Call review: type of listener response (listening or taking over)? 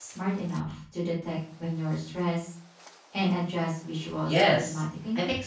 taking over